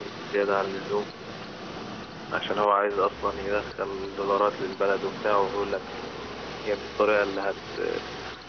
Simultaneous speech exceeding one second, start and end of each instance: none

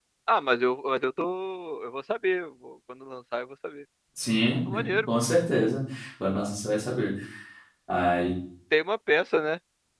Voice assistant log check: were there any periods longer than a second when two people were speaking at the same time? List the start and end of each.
none

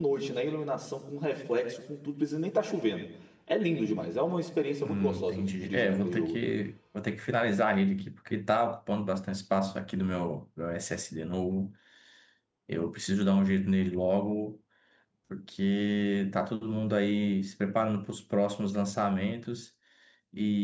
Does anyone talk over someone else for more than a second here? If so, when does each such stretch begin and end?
4.8-6.4

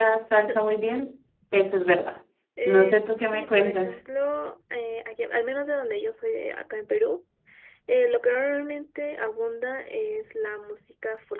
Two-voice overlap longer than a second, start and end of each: 2.6-4.0

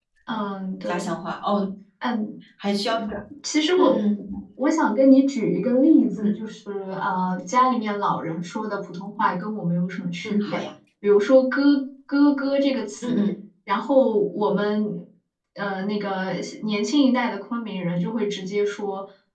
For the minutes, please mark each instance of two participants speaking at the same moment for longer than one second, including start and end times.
none

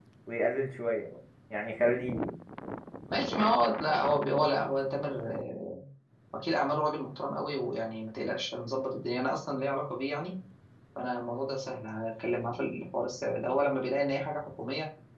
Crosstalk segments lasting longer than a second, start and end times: none

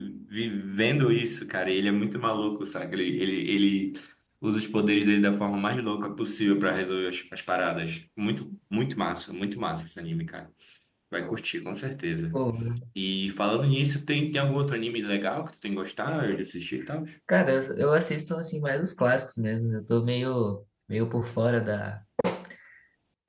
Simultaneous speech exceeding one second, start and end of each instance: none

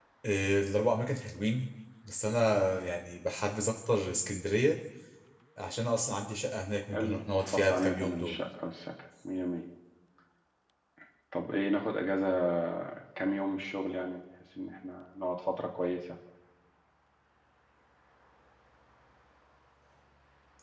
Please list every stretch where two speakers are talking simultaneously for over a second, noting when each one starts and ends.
6.9-8.4

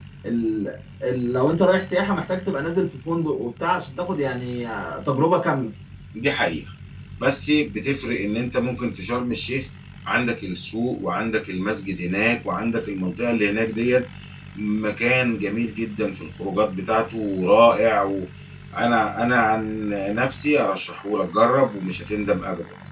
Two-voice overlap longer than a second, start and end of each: none

